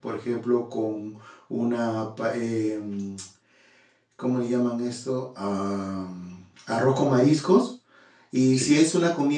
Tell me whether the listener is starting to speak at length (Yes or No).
No